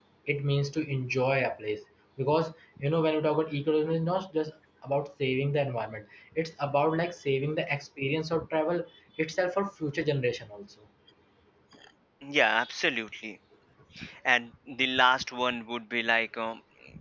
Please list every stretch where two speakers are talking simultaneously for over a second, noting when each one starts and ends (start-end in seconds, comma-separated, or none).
none